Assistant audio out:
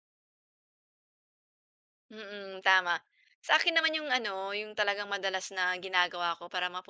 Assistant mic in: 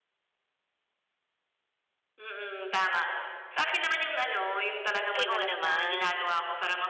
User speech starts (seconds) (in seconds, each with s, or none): 5.2 s